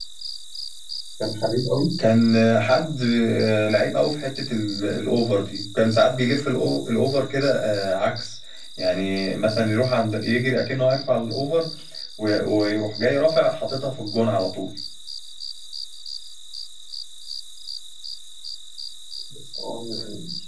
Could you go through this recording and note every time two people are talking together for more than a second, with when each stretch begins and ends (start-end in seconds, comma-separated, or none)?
none